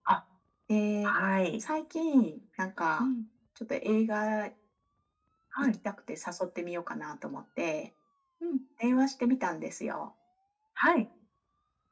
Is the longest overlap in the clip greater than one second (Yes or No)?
No